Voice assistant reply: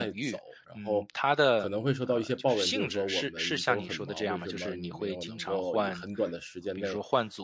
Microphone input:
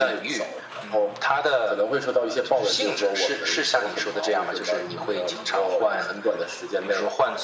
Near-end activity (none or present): none